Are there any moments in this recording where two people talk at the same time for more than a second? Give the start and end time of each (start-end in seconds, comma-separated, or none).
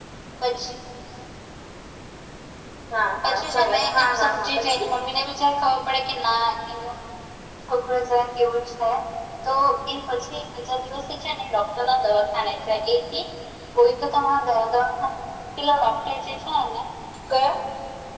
3.2-4.8